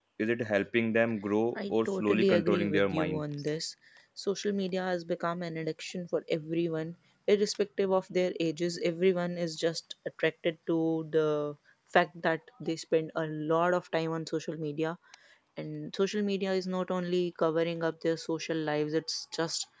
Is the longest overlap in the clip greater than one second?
Yes, from 1.6 s

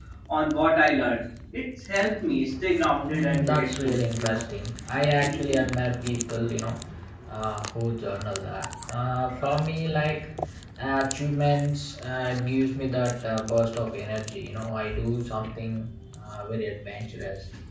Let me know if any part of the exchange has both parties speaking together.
Yes, from 3.1 s

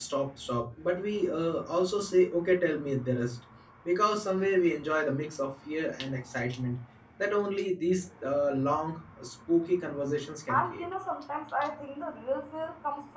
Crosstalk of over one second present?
No

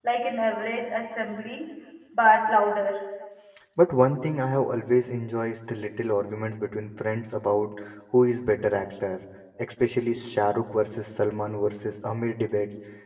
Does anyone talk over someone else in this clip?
No

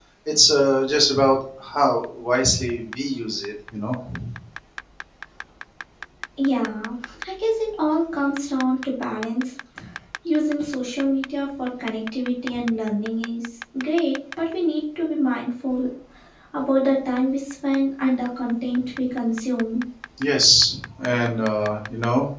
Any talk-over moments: No

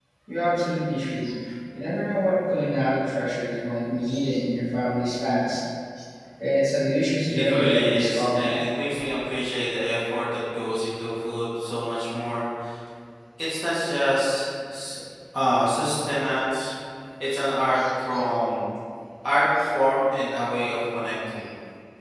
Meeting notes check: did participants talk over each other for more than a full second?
Yes, from 7.3 s

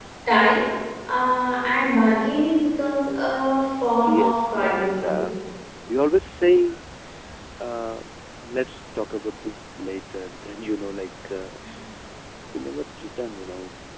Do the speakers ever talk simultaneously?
Yes, from 4.0 s

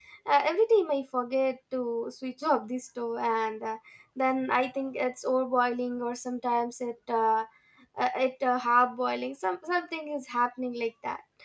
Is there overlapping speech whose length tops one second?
No

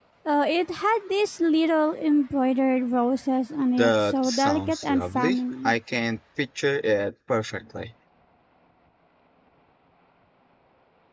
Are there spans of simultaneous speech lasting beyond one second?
Yes, from 3.8 s

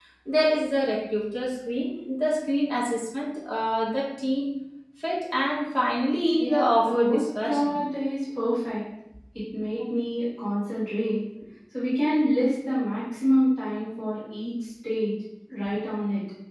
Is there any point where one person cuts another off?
Yes, from 6.4 s

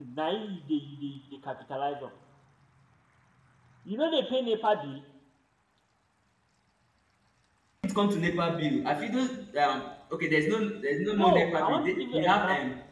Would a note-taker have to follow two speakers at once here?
Yes, from 11.1 s

